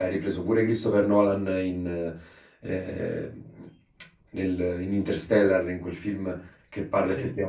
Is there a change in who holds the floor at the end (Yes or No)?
No